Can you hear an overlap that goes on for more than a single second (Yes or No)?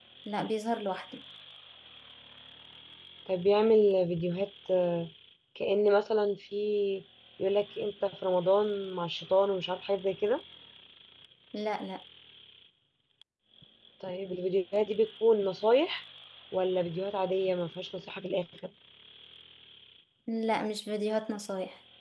No